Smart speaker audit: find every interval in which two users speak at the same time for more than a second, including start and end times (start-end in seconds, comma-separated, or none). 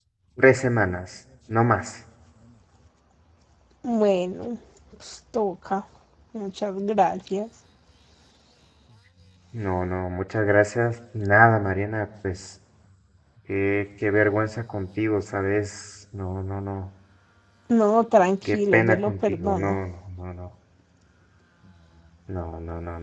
18.4-19.8